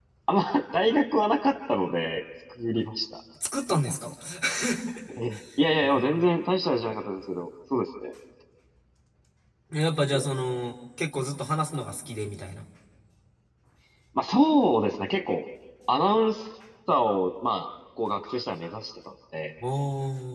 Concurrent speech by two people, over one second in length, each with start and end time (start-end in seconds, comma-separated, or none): none